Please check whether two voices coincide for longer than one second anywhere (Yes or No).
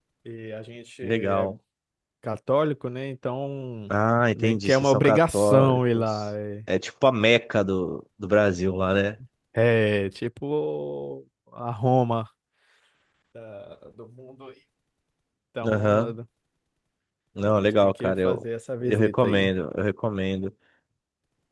Yes